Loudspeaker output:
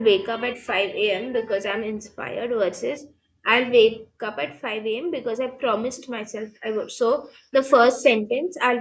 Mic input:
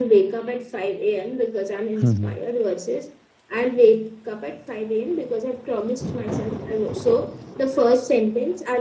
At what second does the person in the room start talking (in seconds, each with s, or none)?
2.0 s